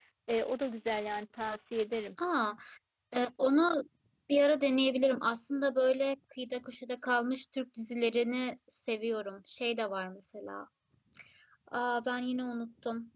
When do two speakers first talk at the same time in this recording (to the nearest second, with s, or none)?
none